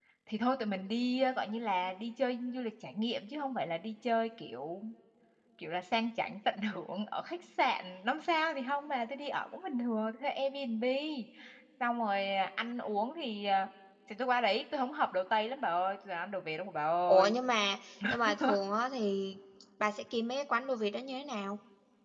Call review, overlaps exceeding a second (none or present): none